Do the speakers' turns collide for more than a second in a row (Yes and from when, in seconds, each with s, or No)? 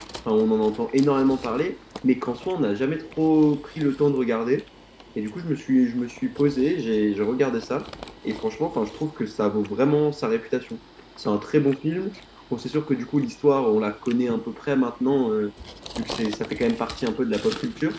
No